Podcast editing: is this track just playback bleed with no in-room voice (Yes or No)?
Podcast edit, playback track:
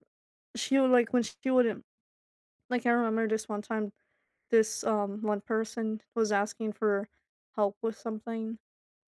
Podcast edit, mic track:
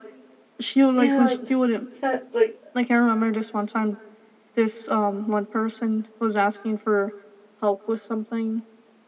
No